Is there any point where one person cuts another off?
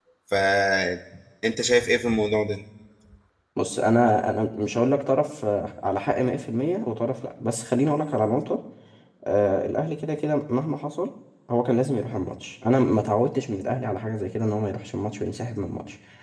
No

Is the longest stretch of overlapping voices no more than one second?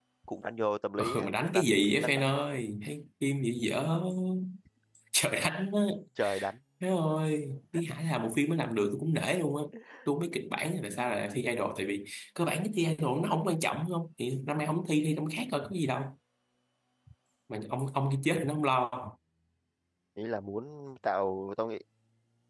No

